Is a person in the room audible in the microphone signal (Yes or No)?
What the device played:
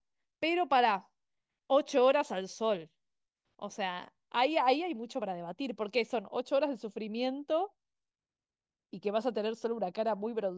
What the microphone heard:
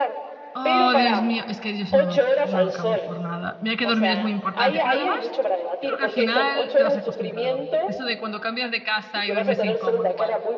Yes